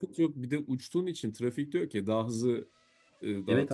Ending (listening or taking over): taking over